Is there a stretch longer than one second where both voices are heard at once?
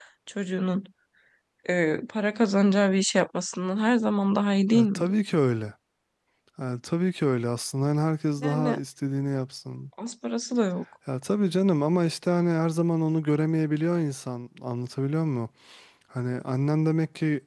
No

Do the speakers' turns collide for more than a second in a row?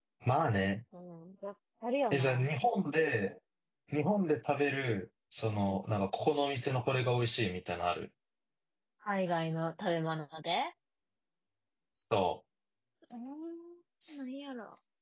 No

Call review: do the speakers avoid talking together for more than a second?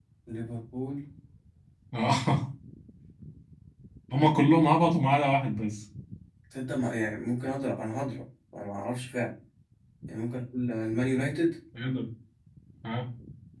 Yes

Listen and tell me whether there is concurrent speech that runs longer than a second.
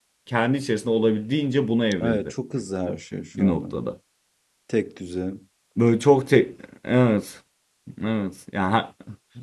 No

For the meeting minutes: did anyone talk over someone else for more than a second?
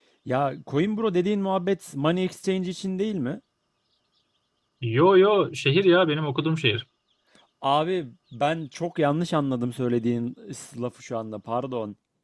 No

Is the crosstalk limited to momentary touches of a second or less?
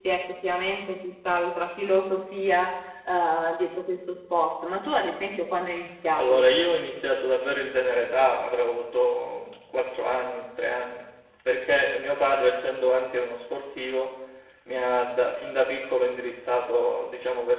Yes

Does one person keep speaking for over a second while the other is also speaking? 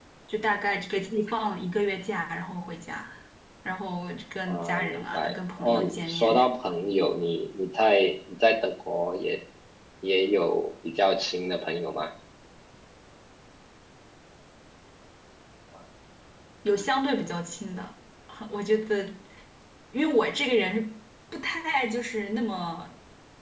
Yes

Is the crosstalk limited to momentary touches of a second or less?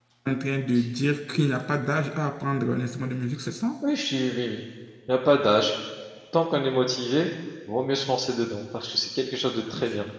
Yes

